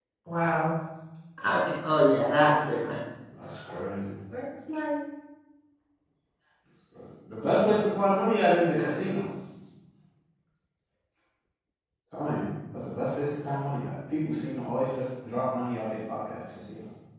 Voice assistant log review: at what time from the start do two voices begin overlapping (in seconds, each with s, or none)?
none